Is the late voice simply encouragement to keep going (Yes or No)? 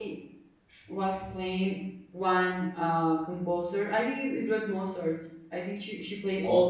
Yes